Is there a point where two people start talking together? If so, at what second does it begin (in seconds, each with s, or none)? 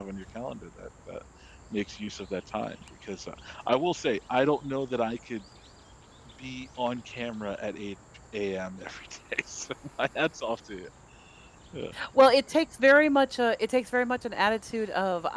none